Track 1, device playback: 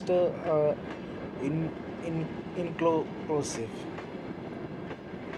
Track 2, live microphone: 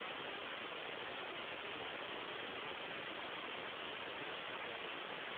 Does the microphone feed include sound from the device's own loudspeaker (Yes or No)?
No